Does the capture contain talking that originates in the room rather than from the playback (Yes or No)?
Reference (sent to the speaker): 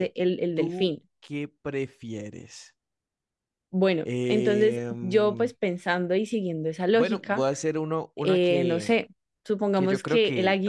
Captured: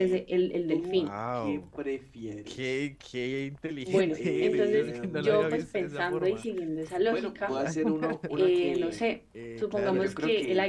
Yes